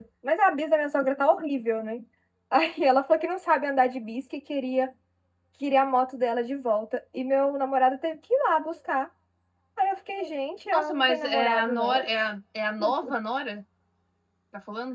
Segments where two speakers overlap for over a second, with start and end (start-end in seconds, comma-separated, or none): 10.7-12.0